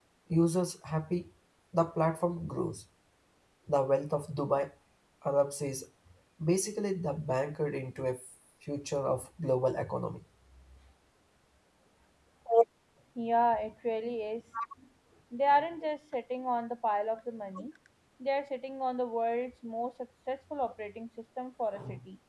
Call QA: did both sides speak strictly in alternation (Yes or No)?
Yes